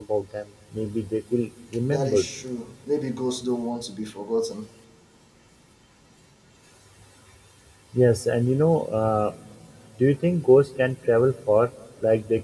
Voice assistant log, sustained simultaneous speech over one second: none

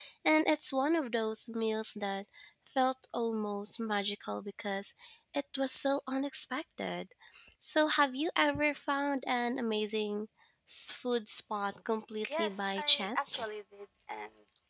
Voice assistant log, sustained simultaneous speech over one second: present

